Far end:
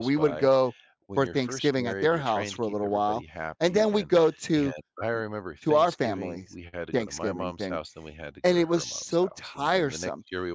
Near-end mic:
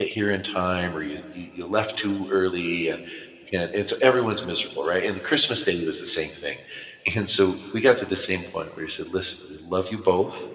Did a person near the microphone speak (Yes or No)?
Yes